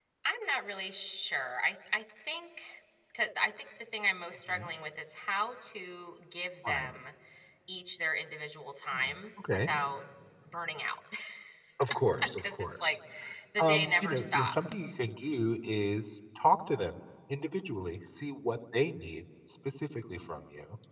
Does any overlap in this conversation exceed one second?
Yes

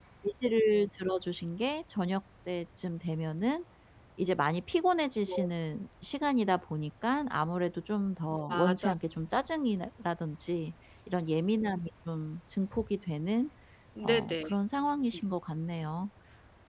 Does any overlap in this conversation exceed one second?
No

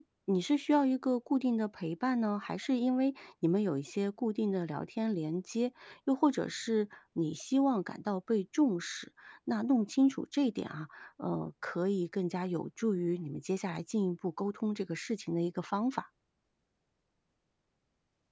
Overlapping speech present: No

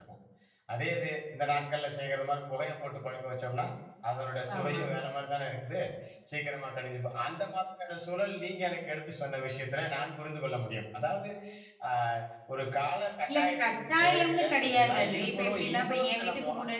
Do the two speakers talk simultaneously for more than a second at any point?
Yes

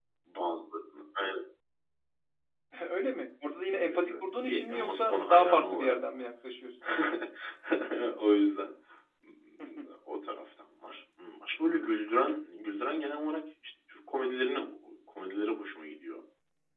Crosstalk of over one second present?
Yes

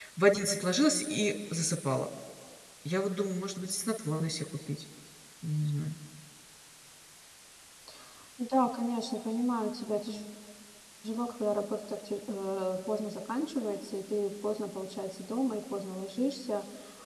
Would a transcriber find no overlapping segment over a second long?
Yes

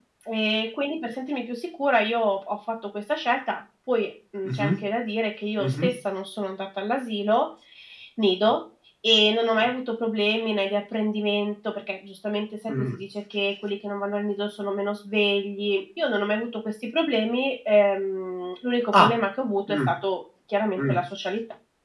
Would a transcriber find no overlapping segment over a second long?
Yes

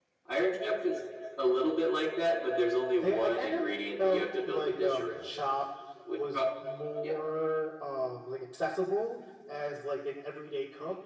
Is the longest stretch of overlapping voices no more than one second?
No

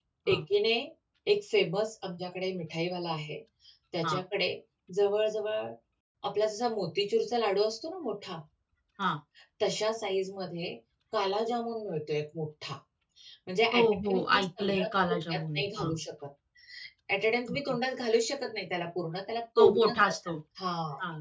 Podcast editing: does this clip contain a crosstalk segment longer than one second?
Yes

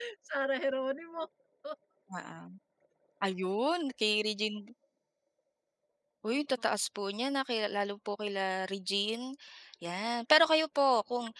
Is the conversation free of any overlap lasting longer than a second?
Yes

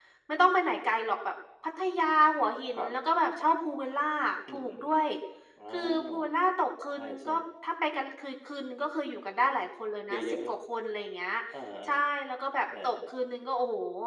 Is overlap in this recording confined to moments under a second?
Yes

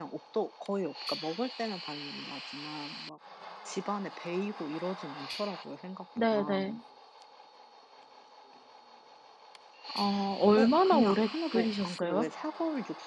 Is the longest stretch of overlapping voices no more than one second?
No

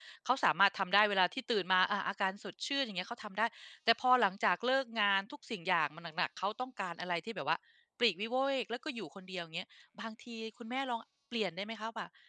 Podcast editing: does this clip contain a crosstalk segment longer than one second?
No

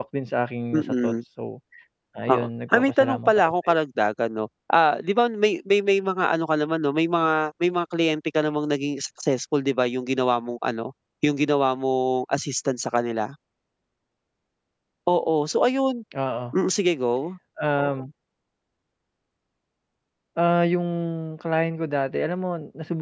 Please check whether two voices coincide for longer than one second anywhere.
Yes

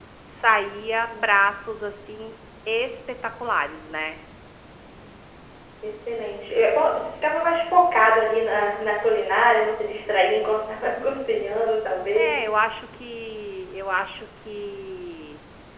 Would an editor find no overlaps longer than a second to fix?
Yes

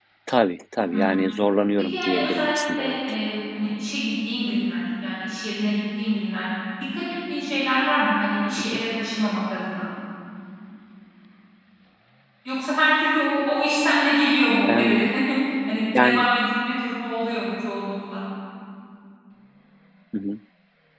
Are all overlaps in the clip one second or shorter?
No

